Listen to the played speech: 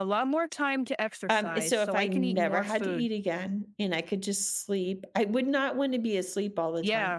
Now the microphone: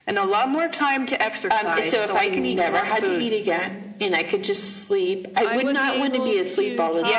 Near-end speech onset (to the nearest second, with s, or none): 5 s